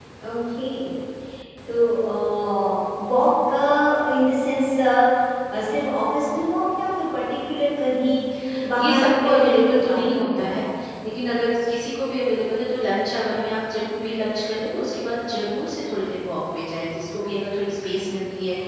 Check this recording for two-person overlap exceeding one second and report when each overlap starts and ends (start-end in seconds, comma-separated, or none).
8.8-10.5